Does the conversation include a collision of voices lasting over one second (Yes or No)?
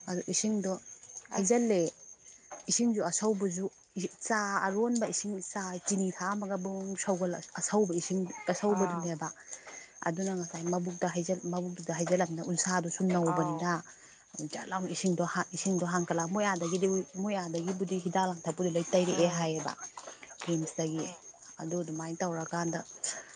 No